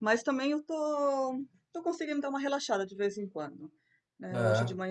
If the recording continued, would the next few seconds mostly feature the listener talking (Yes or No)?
No